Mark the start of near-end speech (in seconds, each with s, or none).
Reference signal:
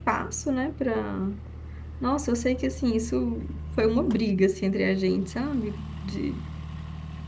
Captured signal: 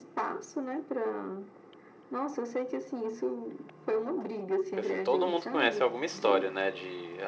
4.8 s